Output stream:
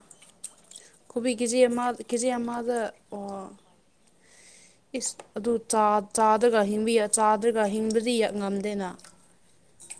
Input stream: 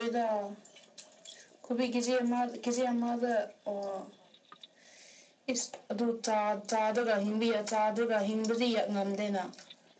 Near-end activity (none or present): none